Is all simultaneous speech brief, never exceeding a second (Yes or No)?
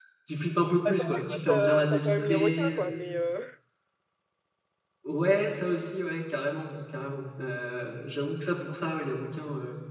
No